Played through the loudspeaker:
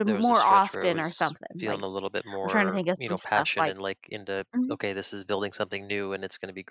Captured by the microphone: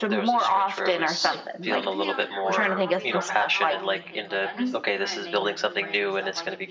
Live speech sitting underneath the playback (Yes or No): Yes